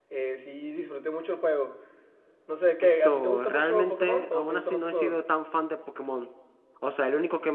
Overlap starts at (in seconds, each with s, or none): 2.8 s